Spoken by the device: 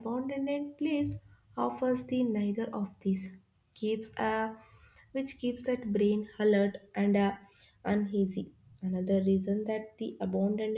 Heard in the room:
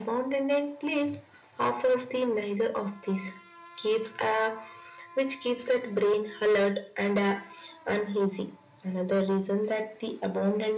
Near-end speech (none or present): none